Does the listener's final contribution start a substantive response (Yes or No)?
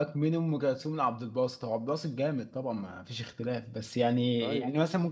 No